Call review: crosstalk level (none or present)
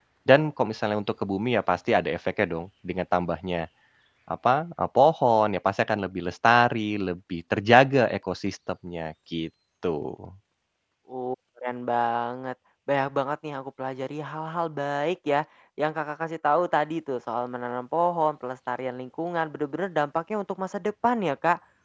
none